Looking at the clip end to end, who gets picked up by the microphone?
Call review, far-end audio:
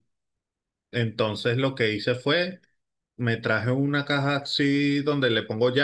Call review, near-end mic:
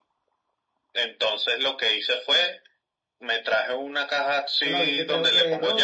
both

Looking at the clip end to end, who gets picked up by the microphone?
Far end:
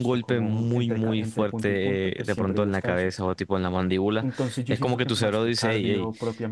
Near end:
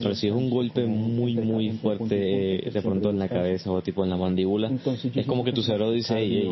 echo only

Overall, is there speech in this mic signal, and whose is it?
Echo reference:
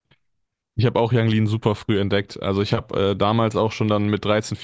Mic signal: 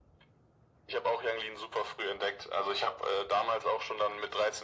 echo only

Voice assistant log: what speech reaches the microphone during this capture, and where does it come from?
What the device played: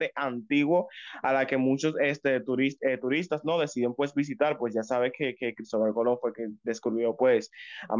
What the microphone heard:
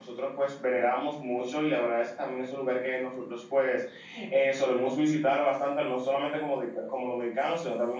user only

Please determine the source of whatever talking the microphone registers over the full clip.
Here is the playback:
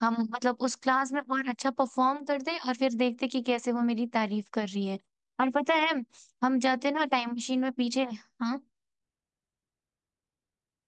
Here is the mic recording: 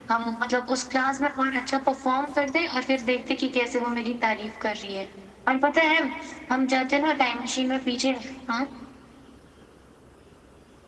echo only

